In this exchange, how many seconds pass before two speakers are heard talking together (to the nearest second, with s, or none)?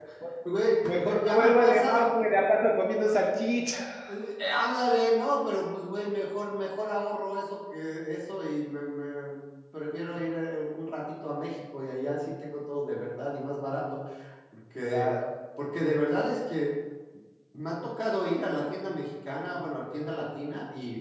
1 s